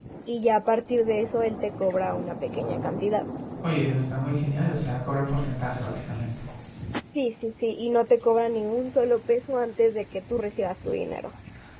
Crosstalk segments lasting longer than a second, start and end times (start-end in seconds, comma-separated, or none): none